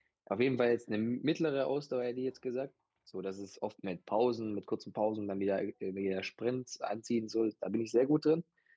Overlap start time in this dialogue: none

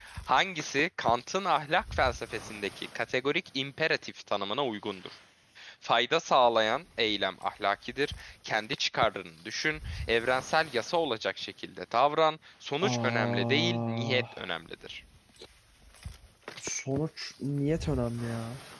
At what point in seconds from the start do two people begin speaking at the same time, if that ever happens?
12.8 s

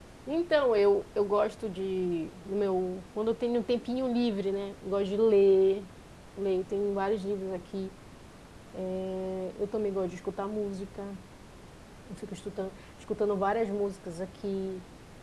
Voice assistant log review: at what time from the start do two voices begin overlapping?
none

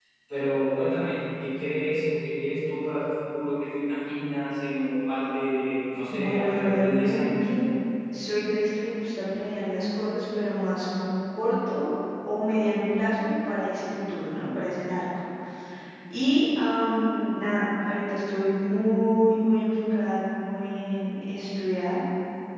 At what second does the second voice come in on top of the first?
6.1 s

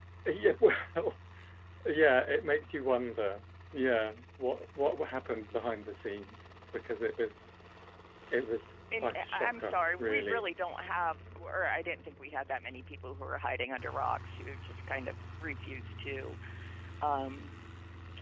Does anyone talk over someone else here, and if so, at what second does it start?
9.0 s

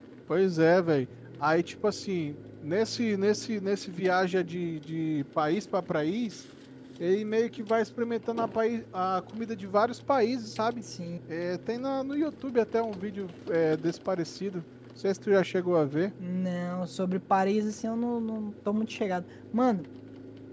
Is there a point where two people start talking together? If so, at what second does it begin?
none

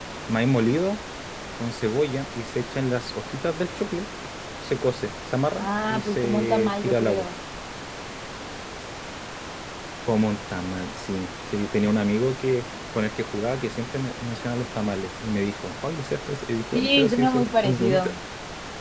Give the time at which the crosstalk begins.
5.6 s

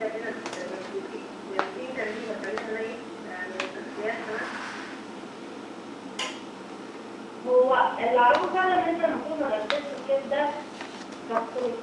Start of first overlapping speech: none

